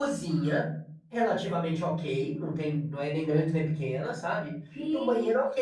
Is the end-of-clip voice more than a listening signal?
No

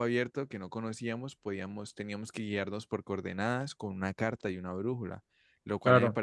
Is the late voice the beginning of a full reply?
No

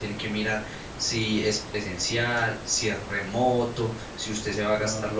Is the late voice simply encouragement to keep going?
Yes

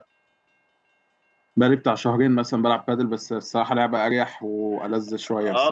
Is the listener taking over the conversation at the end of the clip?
Yes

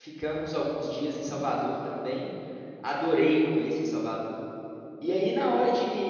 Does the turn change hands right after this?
No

